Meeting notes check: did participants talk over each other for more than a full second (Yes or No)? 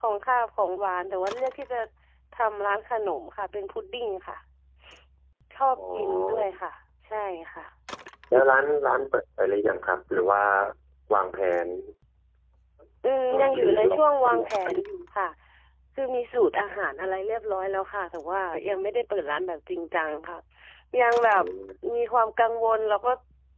Yes